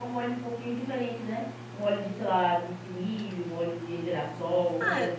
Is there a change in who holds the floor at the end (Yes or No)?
Yes